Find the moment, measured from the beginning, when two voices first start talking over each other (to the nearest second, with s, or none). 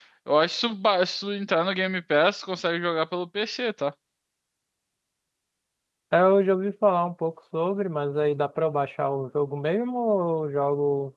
none